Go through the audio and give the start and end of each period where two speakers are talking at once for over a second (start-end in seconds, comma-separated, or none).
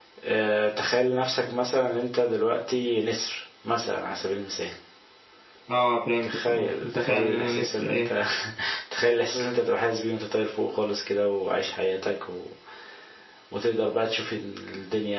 6.2-8.1